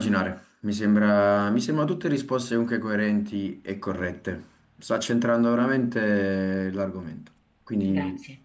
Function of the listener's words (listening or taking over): listening